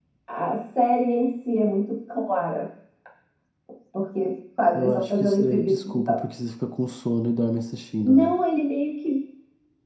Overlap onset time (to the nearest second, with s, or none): 5 s